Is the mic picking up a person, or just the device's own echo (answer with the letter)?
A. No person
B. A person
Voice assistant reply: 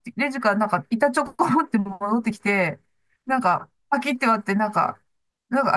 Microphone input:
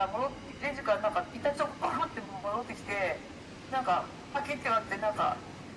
A